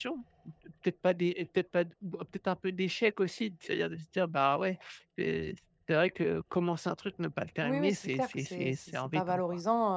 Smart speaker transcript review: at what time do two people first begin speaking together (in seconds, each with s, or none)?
7.6 s